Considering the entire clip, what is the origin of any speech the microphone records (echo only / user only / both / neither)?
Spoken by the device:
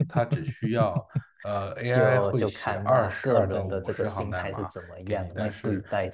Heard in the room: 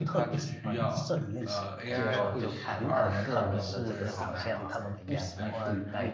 both